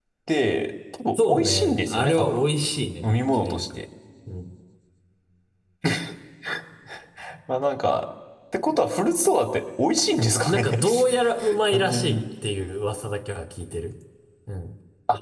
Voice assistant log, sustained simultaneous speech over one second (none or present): present